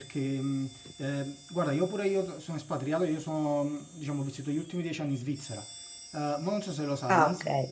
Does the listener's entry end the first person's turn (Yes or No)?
No